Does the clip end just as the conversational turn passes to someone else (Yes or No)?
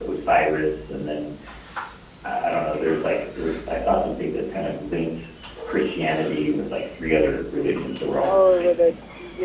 Yes